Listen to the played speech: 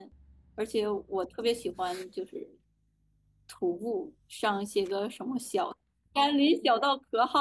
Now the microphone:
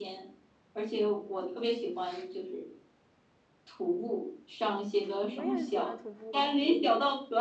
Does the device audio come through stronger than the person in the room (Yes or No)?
Yes